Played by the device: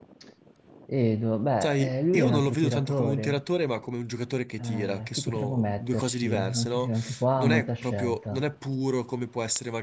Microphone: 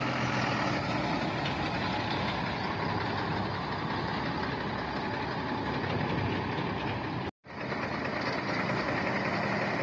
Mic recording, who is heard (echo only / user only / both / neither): neither